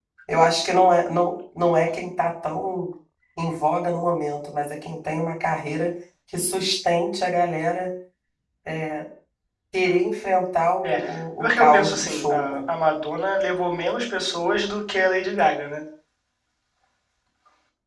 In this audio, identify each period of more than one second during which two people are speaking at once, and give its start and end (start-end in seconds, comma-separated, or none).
11.4-12.6